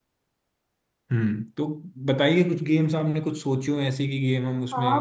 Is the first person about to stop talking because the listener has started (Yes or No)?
Yes